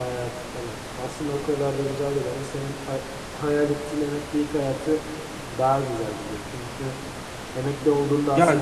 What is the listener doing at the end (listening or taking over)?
taking over